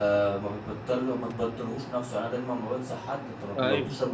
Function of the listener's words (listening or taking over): listening